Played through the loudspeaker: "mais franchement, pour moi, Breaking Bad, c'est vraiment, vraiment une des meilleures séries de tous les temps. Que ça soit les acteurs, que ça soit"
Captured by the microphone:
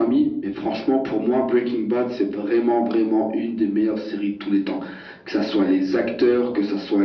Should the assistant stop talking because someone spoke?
No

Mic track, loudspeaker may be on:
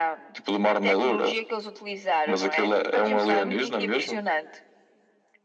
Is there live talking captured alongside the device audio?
Yes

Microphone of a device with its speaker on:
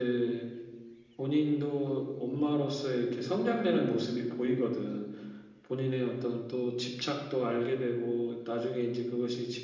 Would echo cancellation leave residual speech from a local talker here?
No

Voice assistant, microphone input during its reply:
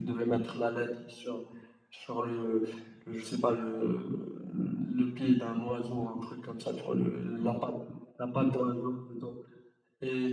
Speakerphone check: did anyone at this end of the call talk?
No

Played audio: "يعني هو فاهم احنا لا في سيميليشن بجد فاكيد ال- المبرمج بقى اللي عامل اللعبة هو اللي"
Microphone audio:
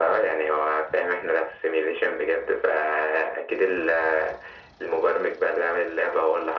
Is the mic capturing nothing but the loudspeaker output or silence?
Yes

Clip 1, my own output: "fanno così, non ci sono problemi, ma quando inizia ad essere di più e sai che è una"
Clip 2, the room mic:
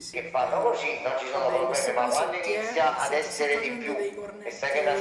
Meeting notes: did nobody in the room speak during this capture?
No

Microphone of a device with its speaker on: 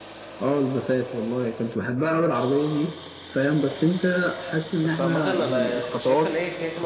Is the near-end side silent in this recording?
No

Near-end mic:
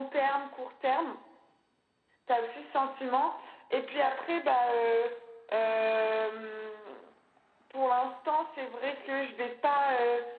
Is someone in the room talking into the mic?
No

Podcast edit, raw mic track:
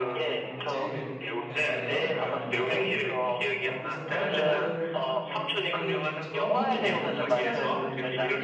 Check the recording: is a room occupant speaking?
Yes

